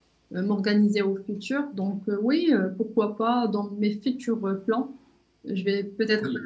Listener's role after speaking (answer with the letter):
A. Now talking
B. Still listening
B